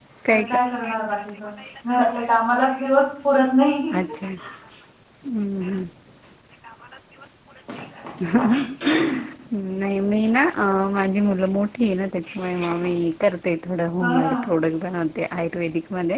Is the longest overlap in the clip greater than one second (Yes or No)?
No